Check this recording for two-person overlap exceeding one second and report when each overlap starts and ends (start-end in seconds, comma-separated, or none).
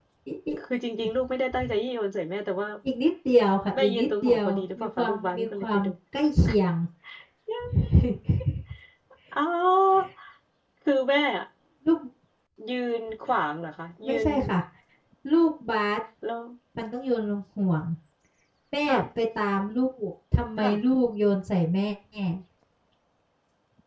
3.8-5.9